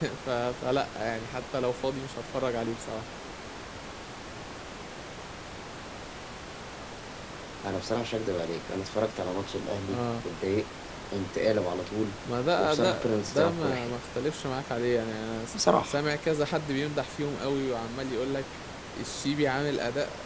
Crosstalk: present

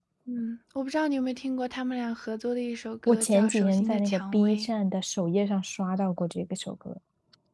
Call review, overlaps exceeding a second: present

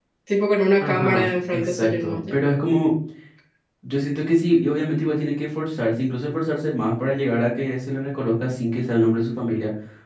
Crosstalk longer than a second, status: present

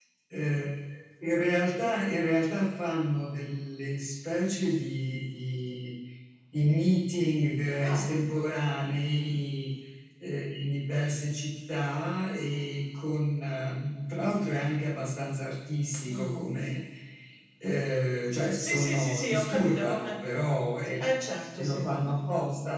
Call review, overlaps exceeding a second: present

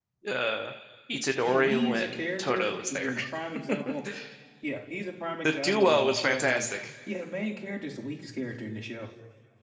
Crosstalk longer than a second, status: present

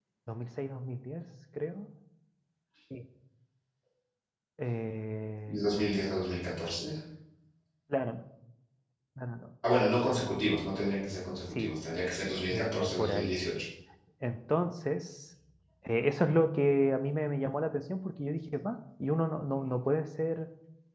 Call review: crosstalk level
present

